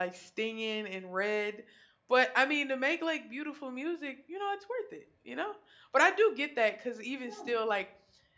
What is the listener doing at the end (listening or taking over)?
listening